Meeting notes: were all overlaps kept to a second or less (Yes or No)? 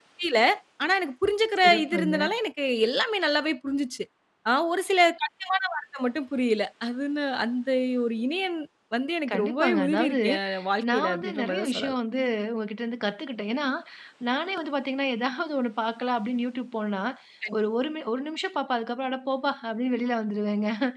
No